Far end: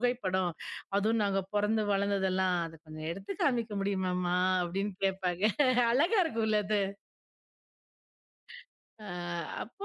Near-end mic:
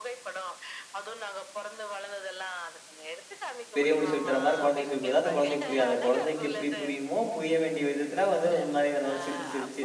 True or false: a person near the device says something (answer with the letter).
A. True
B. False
A